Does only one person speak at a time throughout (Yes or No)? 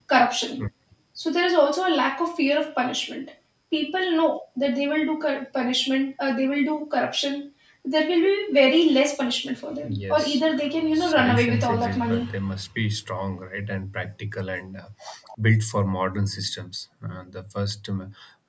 No